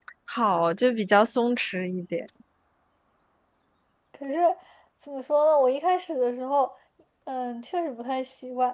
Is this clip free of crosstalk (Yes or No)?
Yes